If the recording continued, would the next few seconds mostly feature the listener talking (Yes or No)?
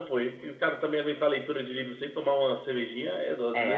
Yes